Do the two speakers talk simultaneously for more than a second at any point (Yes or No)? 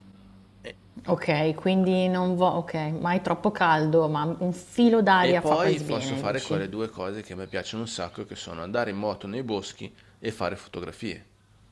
Yes